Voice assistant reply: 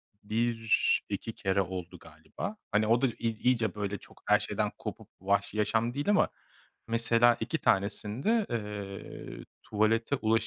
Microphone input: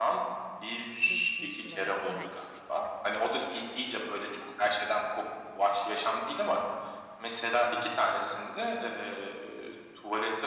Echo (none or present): present